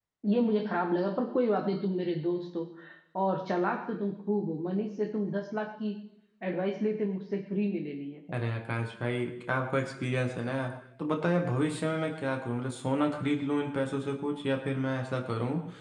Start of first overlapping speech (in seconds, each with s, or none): none